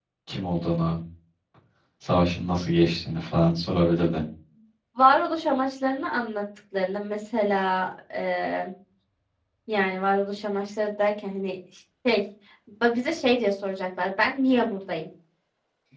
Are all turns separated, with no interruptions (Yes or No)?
Yes